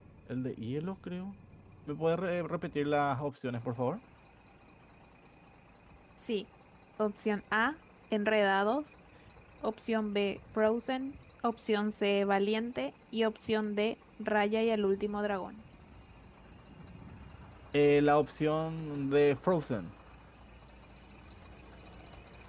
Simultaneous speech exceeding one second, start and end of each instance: none

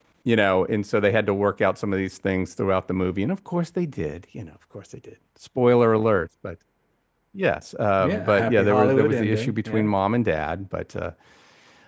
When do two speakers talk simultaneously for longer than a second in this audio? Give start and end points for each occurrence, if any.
8.0-9.9

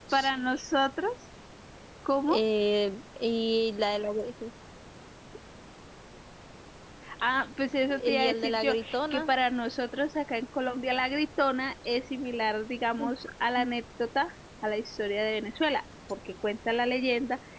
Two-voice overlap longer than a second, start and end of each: 8.1-9.3

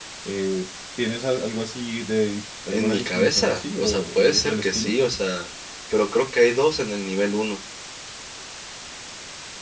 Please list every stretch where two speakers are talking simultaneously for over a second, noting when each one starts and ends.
2.7-4.9

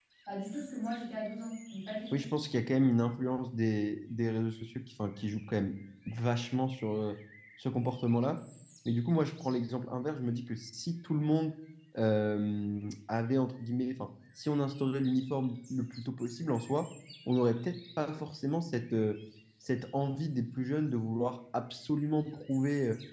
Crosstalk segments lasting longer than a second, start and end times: none

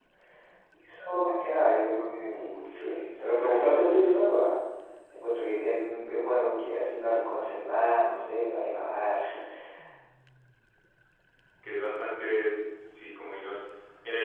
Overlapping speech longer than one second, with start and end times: 2.3-4.0

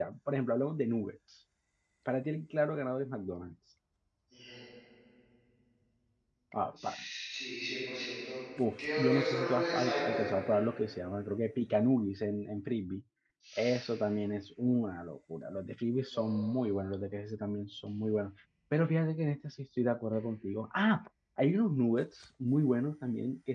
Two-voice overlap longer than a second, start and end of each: 9.0-10.5

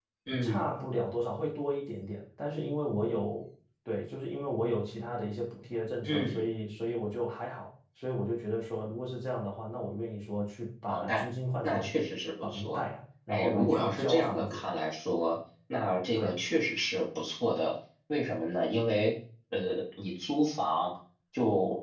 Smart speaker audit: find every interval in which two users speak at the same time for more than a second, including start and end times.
13.3-14.6

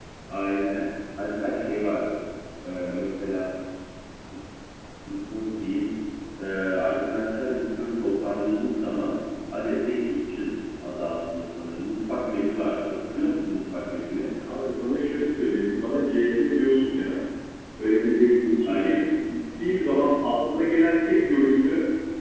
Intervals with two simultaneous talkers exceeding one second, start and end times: none

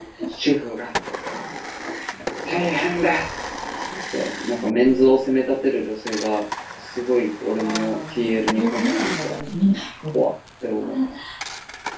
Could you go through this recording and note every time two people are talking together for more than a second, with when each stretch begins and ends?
7.6-9.4

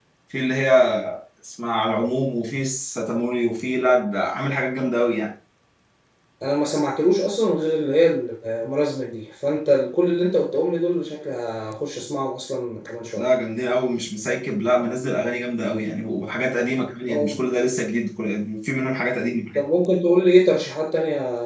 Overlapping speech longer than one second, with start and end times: none

